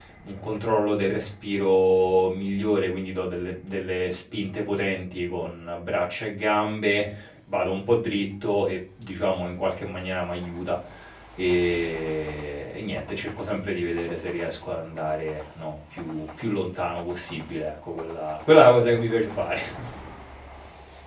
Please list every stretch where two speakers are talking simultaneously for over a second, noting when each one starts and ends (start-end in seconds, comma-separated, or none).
none